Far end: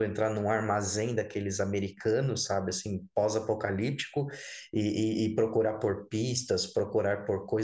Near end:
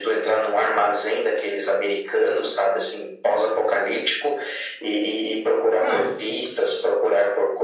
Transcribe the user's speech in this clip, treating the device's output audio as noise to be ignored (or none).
Cara,